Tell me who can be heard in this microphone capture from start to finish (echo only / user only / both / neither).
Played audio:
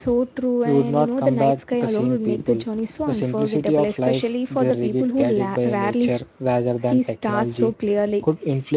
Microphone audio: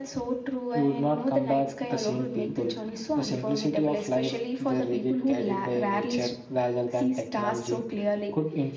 echo only